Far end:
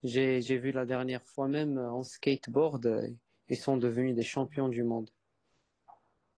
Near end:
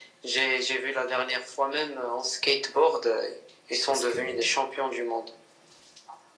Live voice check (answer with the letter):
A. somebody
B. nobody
A